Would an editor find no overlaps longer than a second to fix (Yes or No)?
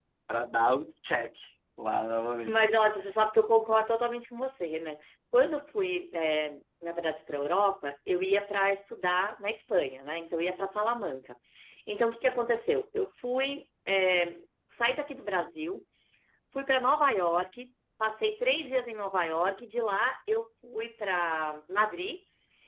Yes